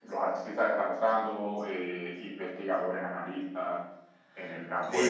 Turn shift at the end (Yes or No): Yes